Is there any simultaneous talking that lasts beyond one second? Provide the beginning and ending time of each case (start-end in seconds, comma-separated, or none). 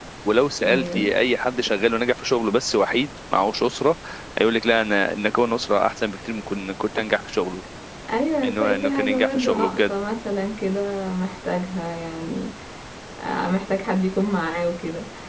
8.4-9.9